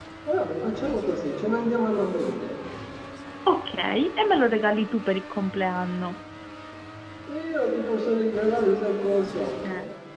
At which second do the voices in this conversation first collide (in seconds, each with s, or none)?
none